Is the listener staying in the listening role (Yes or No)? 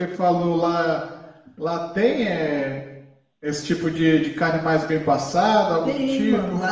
No